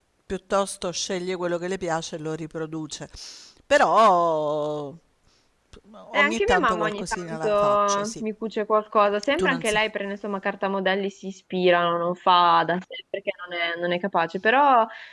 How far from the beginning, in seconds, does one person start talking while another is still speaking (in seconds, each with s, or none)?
6.1 s